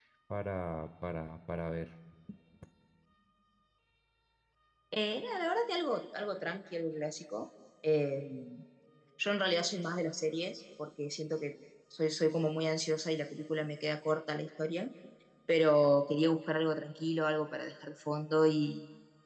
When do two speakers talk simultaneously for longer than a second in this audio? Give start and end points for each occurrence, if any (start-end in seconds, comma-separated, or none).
none